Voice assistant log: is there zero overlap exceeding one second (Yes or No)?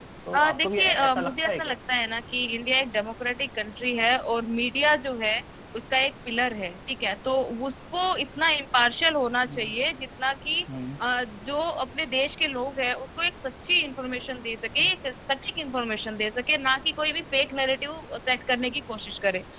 No